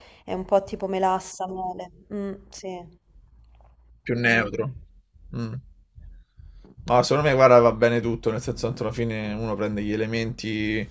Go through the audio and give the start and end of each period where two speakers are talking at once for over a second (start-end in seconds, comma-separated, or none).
none